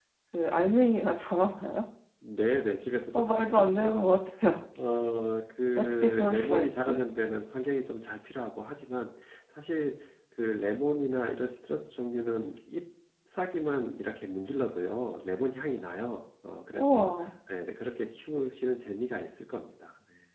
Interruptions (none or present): present